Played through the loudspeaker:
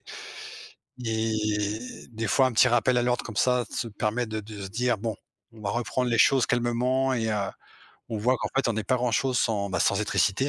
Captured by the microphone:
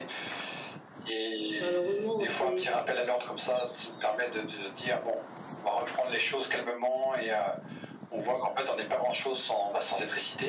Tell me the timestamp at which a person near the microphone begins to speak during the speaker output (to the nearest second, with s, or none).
2 s